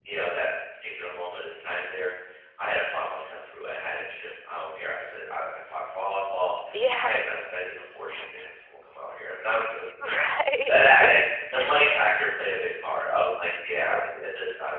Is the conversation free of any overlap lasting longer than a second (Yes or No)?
No